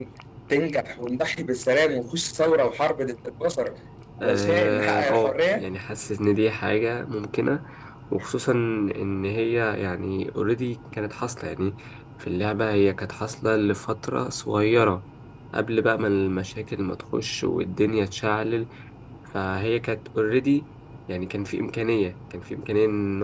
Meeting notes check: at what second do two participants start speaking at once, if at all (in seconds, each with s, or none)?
4.2 s